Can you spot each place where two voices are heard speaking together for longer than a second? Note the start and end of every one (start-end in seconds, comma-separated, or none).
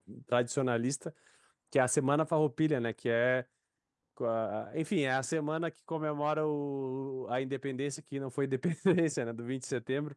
none